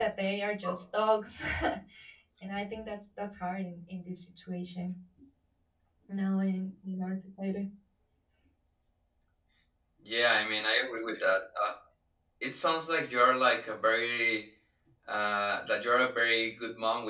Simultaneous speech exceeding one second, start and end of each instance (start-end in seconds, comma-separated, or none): none